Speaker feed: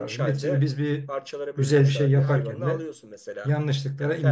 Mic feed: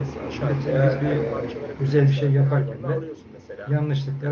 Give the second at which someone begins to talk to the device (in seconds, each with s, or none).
0.7 s